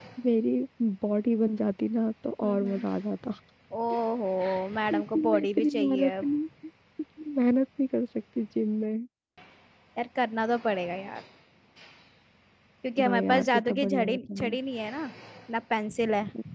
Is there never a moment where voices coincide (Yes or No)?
No